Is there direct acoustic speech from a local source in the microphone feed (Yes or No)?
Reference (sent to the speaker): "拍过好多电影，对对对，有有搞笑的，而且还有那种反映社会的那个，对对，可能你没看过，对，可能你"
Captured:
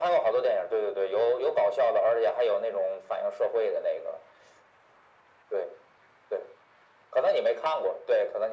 No